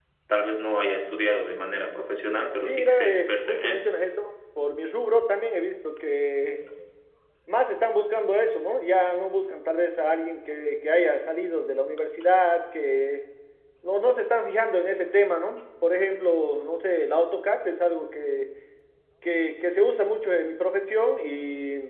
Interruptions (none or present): present